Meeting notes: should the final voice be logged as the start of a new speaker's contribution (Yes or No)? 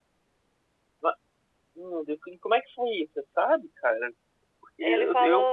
No